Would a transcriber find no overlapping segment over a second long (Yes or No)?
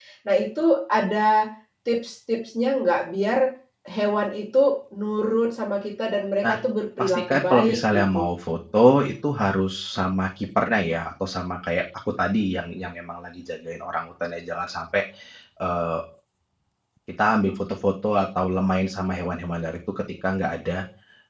No